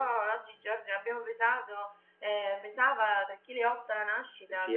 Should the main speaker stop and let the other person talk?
Yes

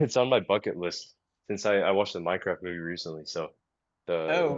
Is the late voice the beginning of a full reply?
Yes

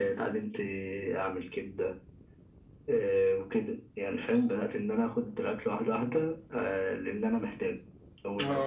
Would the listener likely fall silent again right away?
No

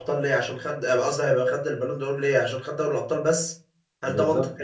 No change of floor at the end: No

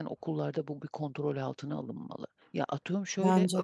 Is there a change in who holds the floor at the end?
No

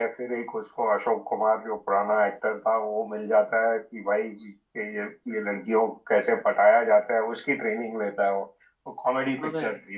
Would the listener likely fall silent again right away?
Yes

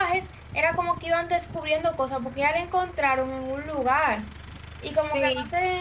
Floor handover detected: Yes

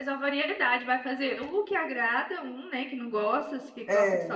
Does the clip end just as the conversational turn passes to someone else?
No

